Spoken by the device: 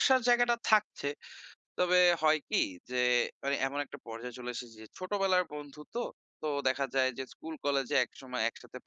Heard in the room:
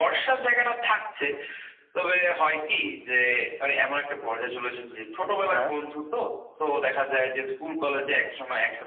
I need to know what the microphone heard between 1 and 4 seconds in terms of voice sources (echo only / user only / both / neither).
echo only